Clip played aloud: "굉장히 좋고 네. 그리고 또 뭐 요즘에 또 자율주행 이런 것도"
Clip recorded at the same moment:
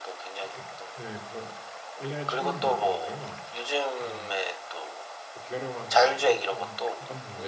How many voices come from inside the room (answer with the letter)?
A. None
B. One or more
B